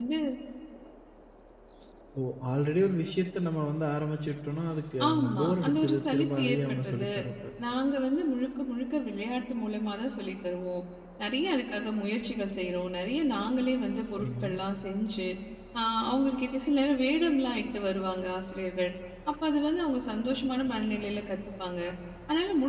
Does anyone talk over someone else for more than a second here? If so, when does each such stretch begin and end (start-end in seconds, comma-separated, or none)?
5.1-7.1